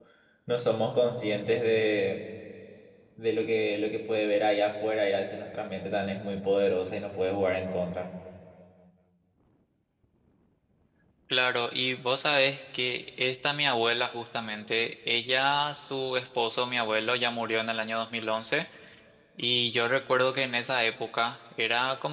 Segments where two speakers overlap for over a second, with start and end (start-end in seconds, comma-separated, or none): none